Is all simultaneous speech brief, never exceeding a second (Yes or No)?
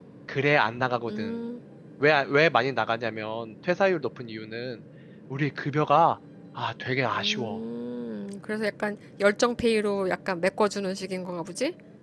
Yes